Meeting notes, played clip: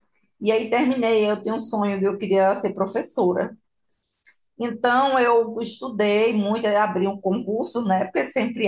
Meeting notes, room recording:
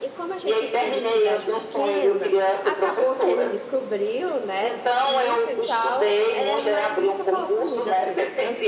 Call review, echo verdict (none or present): present